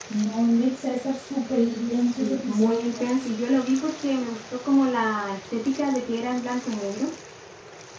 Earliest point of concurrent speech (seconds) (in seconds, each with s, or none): 1.6 s